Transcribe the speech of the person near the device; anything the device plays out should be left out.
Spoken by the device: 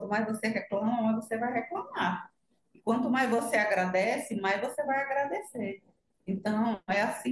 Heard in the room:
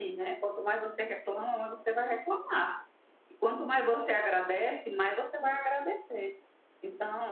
none

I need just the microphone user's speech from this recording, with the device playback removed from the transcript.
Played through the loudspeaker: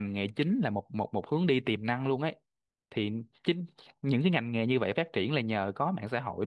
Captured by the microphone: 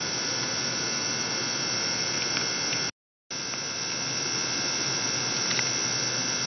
none

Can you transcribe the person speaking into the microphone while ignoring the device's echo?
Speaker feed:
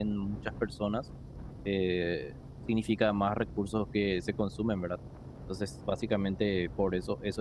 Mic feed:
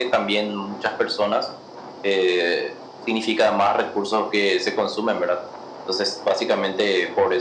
none

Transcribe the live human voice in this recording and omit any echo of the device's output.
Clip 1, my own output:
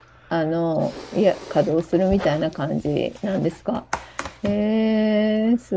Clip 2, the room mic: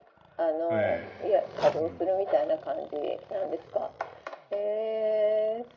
ええ。うん。

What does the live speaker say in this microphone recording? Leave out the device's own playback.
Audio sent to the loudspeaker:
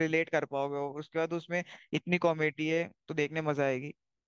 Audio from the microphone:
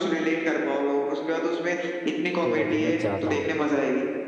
तो अभी मैं जाता हूँ फिर

